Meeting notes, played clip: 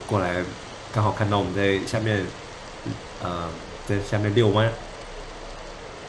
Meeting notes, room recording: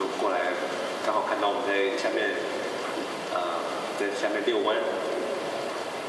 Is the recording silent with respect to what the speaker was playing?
No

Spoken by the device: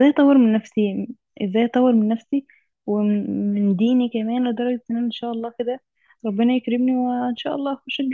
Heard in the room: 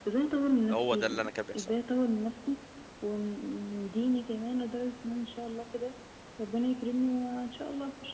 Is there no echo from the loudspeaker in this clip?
No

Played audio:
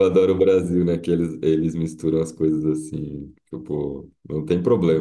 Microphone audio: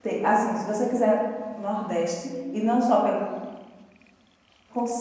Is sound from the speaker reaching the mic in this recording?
No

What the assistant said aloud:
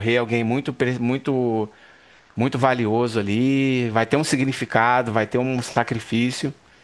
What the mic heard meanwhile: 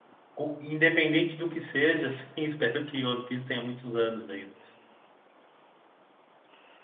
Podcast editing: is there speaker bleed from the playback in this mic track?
No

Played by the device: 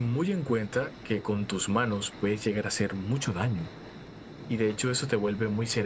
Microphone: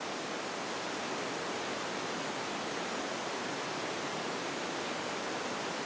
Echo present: No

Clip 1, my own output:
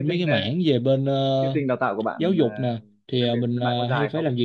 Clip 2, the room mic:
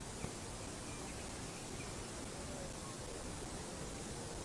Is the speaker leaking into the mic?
No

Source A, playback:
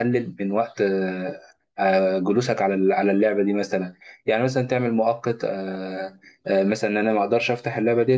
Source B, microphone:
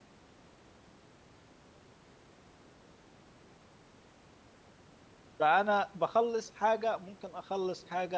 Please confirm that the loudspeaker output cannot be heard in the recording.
Yes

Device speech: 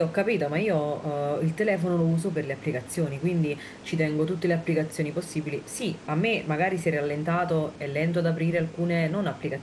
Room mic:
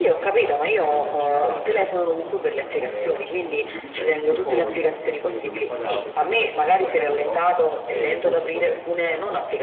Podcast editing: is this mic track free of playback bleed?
No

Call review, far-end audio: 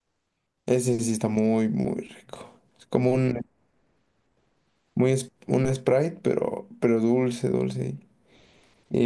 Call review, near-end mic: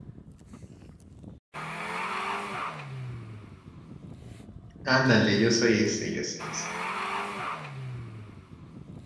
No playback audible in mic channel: Yes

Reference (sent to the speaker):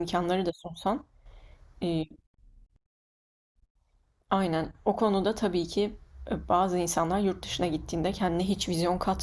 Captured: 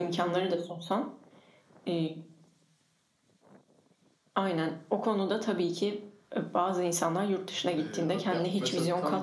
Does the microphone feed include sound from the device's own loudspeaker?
Yes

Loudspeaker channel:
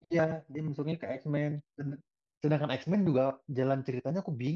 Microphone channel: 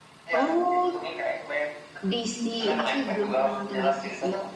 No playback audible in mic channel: No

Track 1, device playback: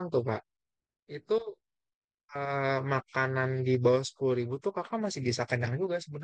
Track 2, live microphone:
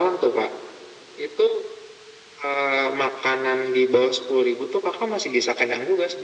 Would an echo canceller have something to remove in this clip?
Yes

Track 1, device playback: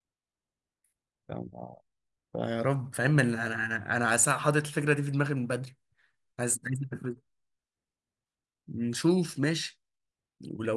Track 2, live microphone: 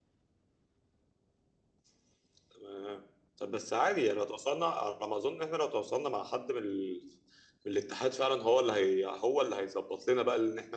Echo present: No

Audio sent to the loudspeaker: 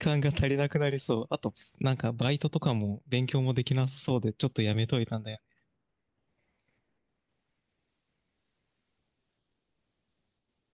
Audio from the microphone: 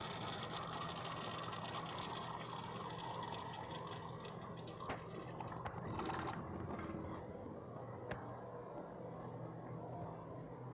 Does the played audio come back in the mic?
No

